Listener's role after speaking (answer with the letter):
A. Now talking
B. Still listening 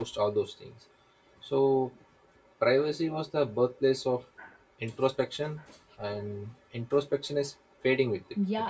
A